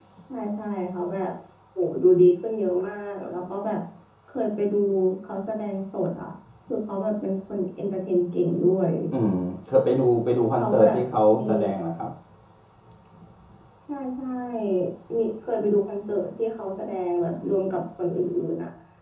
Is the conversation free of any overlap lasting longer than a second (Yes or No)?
Yes